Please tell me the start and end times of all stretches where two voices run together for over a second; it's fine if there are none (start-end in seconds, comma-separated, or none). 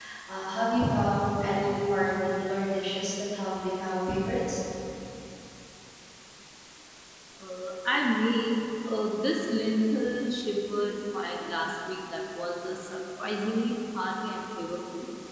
none